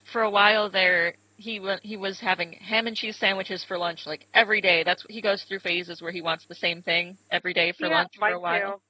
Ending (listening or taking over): taking over